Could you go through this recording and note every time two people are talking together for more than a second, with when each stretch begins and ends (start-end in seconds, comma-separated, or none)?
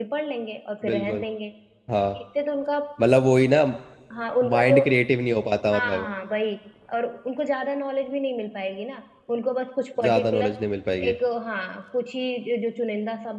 none